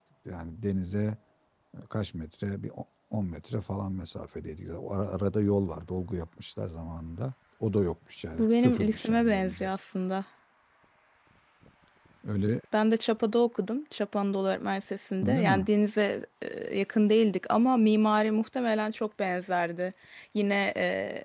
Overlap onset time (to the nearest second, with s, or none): 8 s